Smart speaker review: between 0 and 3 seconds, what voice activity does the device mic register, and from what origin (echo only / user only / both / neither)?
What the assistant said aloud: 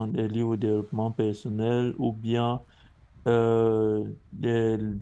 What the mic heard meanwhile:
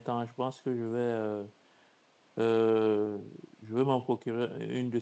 user only